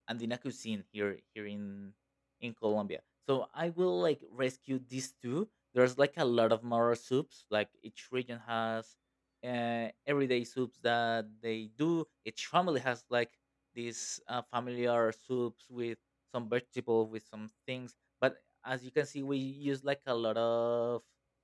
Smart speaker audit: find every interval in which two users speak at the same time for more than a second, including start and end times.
none

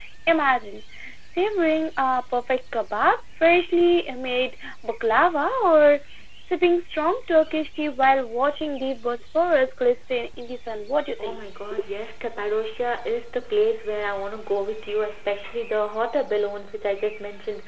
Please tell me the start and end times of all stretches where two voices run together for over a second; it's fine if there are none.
none

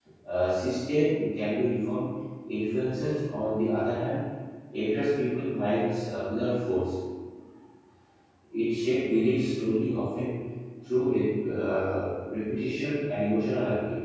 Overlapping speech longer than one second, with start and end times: none

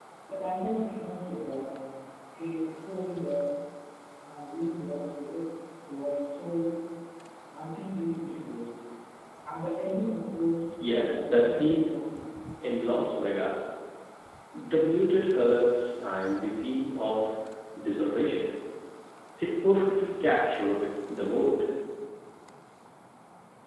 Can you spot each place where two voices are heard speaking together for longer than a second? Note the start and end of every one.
10.8-12.1

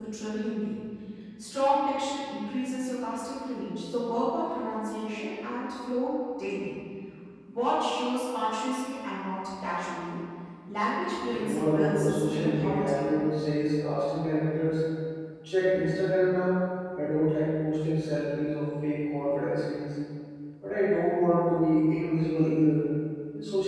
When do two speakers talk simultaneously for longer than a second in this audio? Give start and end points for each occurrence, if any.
11.3-13.1

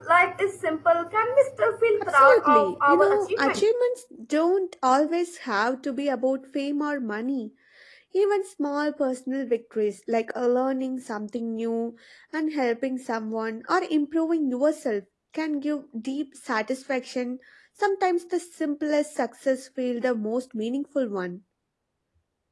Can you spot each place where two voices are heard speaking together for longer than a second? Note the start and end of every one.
2.0-3.6

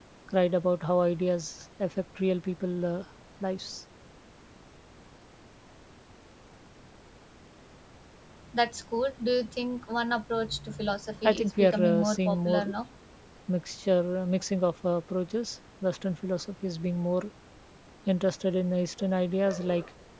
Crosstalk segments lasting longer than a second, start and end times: 11.2-12.6

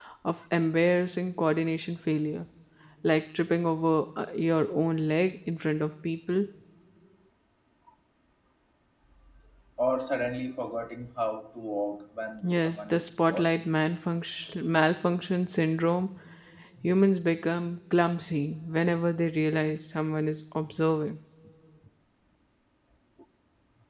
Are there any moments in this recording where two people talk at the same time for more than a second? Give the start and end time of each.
12.4-13.6

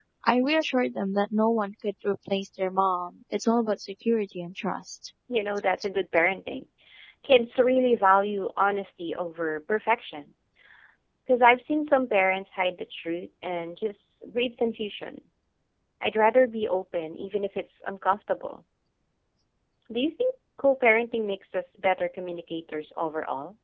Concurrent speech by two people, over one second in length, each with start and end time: none

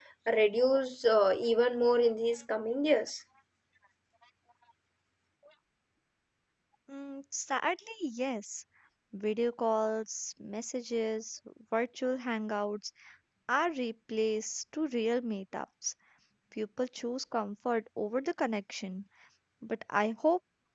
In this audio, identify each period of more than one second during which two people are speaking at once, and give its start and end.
none

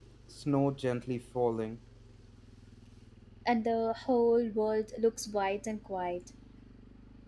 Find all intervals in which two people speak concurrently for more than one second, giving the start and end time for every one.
none

